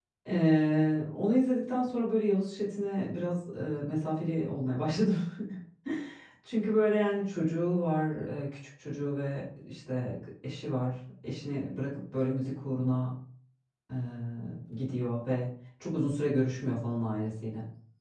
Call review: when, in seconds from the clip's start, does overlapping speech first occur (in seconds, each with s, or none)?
none